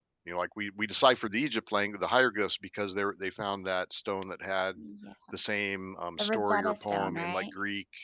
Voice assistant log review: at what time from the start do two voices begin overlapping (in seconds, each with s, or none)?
6.2 s